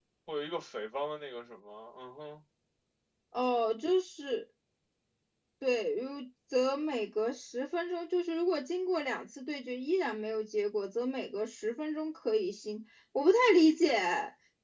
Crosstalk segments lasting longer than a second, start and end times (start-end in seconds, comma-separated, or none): none